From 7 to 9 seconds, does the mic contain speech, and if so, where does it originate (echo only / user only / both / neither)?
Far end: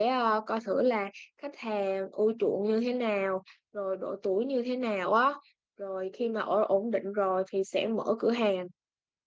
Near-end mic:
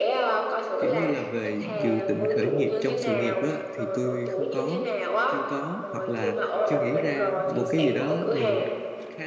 both